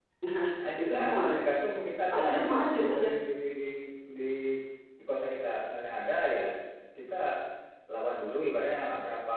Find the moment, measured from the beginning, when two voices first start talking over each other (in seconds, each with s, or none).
0.6 s